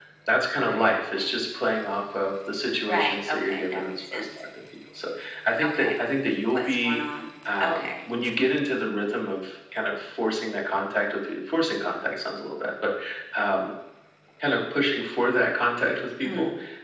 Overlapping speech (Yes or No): Yes